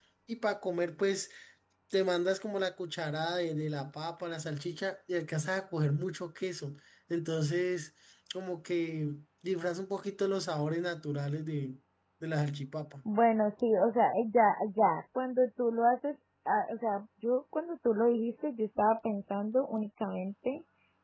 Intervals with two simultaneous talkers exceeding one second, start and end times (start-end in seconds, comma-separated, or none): none